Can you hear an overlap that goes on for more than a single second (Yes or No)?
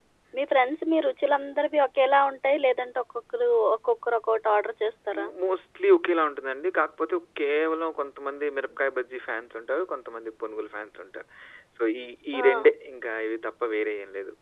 No